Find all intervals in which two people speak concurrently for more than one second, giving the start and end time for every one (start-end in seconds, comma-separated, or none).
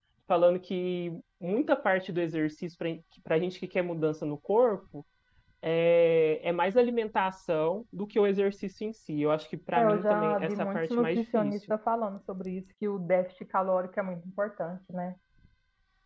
9.7-11.5